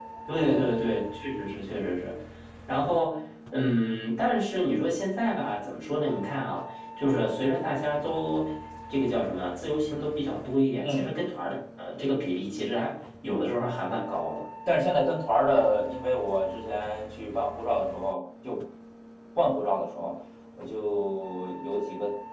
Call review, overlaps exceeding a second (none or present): none